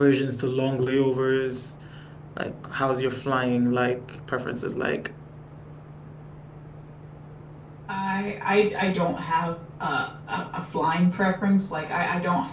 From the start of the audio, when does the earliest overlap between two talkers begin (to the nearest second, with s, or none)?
none